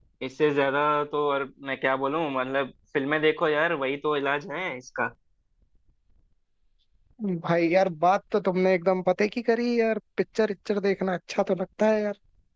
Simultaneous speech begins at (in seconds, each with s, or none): none